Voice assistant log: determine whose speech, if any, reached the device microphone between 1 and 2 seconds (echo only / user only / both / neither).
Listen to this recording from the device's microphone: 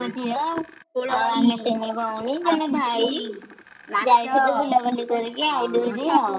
echo only